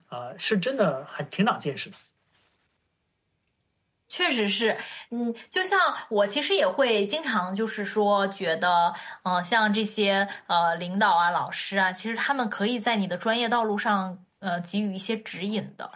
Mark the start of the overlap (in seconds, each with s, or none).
none